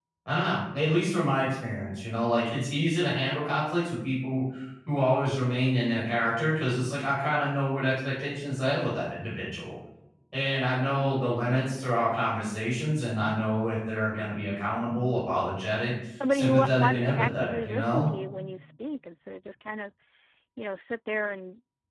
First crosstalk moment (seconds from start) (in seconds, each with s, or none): 16.2 s